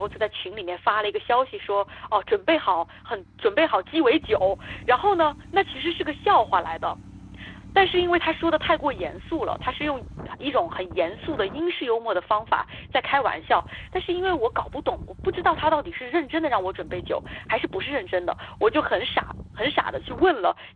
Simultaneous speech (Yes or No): No